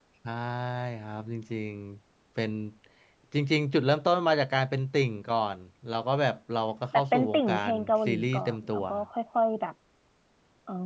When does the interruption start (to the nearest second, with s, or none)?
7 s